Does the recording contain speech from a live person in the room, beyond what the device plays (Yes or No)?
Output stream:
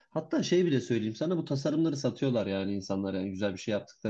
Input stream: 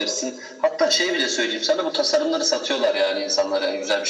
No